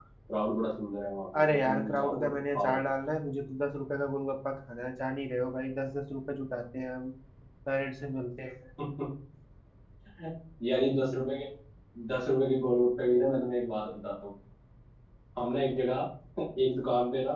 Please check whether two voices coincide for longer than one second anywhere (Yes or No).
Yes